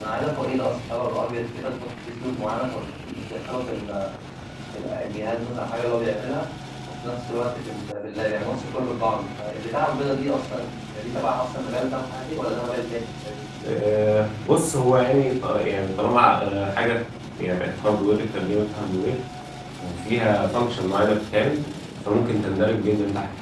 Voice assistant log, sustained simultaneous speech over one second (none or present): none